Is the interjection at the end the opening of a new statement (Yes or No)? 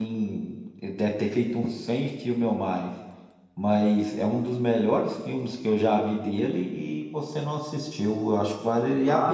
Yes